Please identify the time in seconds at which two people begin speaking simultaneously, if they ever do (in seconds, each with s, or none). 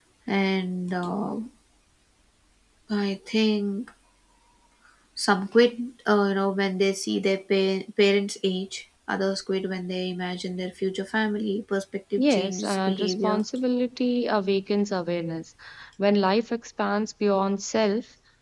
12.2 s